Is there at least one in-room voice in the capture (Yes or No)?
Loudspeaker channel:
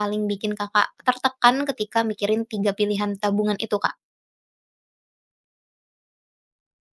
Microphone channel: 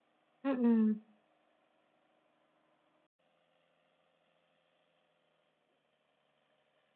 Yes